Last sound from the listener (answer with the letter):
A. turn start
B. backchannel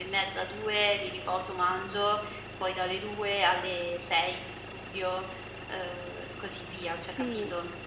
A